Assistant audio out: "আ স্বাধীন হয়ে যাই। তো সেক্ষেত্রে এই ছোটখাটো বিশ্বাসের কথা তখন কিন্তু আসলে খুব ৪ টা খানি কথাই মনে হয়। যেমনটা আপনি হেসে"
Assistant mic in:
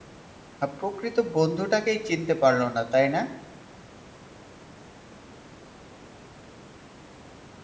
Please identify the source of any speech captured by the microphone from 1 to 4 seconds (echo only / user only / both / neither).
user only